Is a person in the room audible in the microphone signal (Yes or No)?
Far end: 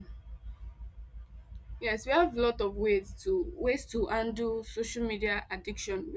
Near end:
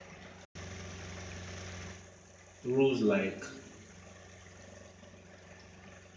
Yes